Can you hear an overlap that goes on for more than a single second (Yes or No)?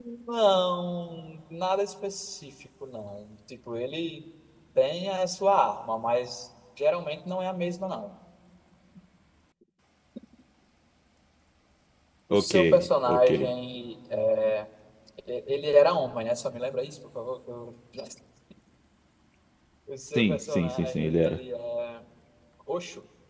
Yes